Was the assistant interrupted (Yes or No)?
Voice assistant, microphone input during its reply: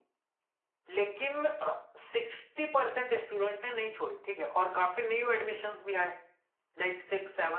Yes